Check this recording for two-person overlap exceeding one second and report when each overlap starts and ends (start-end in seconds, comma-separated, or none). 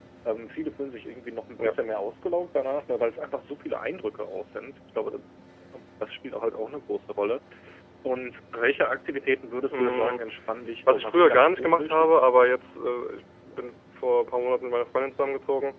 10.9-12.2